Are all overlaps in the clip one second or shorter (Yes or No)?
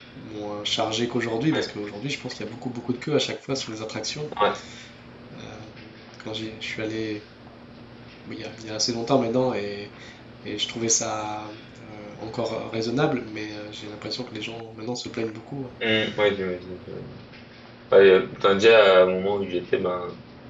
Yes